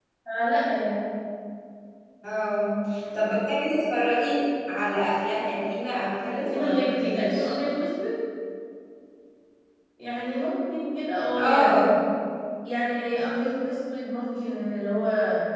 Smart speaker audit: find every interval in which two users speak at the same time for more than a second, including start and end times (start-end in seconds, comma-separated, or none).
6.2-7.5